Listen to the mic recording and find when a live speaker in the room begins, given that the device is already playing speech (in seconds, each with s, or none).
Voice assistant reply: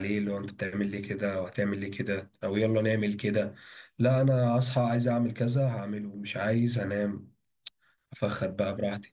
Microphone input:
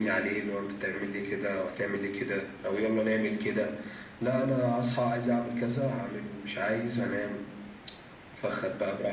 none